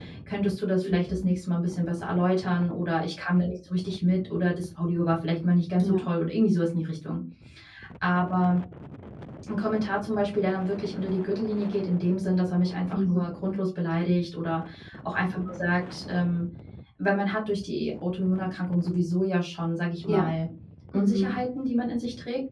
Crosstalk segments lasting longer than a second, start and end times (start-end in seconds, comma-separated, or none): none